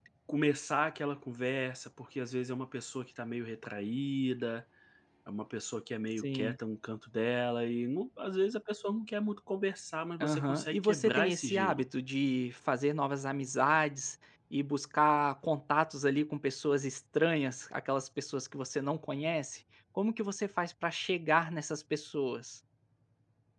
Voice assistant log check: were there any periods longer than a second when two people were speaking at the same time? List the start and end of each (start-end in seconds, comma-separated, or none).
10.2-11.8